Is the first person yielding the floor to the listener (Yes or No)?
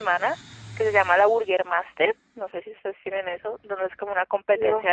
No